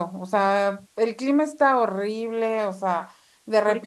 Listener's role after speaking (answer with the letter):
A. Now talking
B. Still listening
B